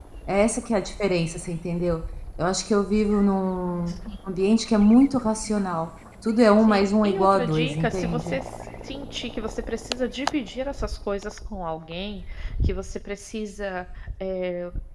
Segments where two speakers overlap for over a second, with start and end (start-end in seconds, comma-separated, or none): 6.6-8.4